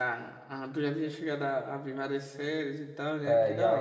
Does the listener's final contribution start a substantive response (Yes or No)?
Yes